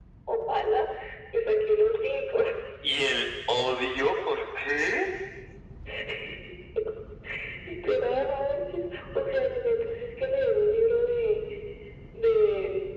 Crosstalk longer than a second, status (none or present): none